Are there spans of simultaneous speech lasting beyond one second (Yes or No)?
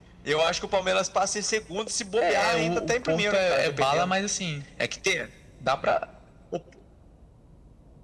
Yes